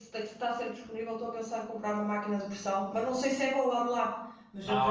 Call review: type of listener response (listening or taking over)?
taking over